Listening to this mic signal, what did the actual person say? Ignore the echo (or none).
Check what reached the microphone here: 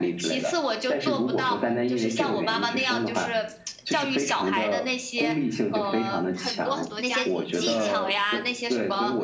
很多很多家庭就是，